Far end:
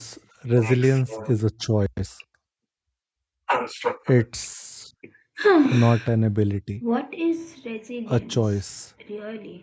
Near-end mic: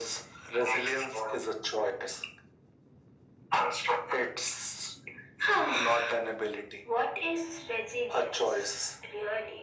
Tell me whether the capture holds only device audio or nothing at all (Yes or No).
Yes